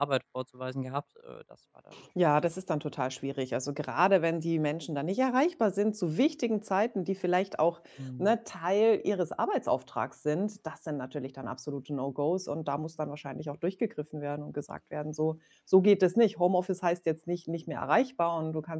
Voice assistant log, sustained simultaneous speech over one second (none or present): none